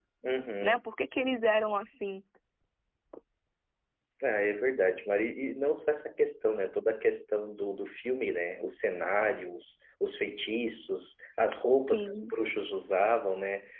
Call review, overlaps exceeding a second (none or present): none